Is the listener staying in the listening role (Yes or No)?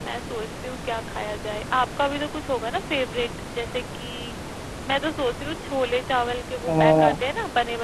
Yes